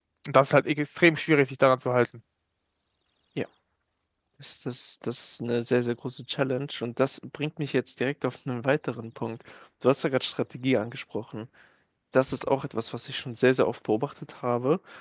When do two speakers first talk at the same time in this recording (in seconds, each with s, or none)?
none